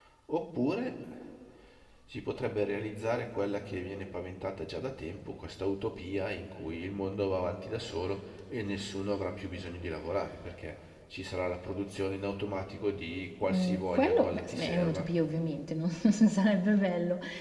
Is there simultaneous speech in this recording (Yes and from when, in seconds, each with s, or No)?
Yes, from 13.4 s